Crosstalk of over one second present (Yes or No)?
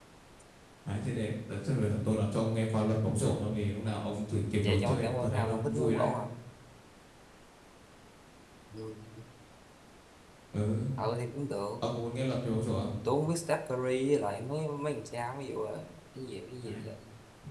Yes